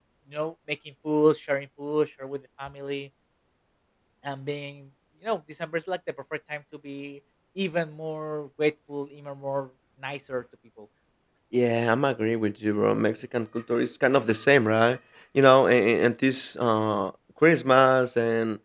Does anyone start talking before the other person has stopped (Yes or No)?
No